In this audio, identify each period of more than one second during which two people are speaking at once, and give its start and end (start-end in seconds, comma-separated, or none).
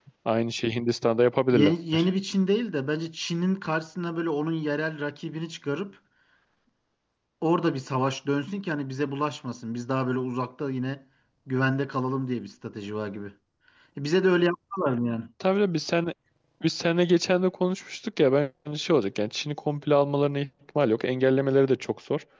none